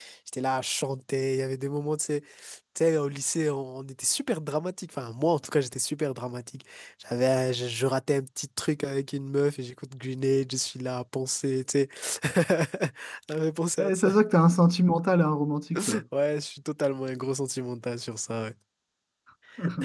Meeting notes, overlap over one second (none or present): none